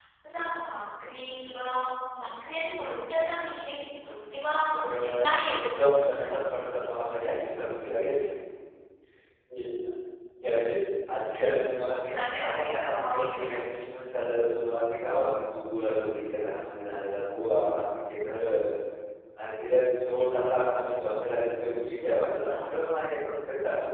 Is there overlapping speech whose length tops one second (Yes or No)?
Yes